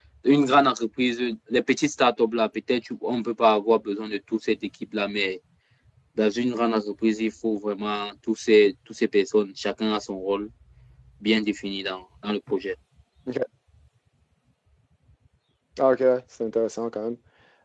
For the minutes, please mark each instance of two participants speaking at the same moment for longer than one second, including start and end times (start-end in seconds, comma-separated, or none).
none